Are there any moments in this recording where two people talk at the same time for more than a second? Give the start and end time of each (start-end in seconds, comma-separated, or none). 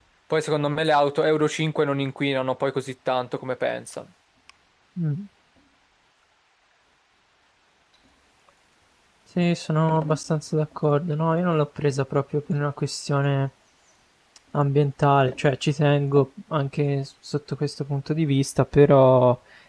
none